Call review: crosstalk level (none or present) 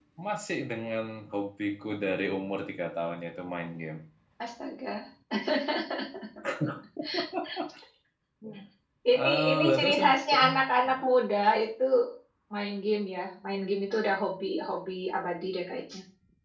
present